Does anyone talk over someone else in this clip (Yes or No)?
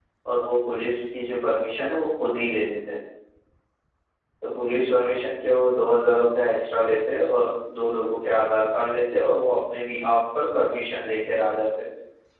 No